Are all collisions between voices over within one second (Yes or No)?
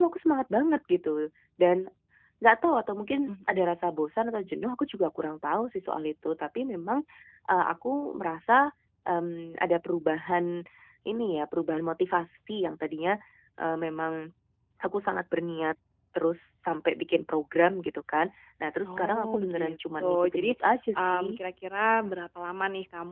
No